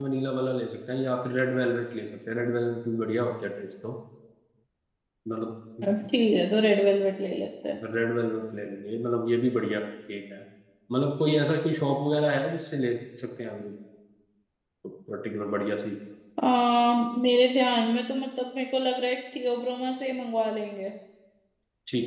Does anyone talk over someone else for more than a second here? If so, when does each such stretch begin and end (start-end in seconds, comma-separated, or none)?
none